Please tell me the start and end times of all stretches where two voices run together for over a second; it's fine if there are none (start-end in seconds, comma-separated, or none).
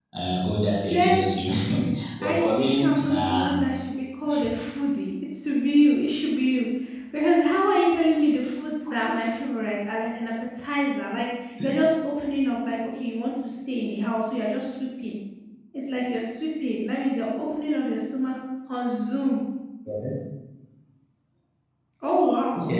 2.2-3.5